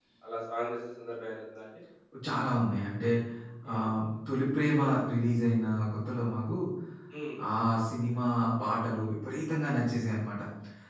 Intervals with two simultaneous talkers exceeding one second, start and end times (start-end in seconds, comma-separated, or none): none